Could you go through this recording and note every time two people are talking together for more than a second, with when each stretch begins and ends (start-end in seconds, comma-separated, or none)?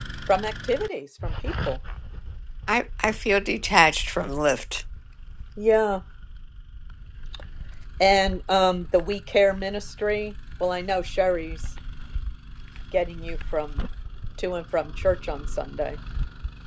none